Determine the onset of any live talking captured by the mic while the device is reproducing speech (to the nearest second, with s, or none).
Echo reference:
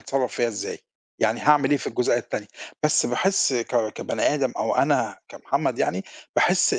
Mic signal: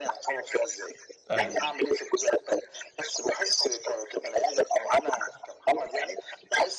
1 s